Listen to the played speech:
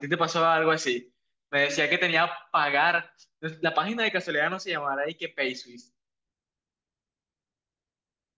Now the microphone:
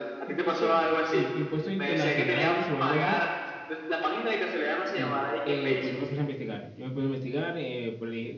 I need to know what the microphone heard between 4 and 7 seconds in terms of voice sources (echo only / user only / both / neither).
both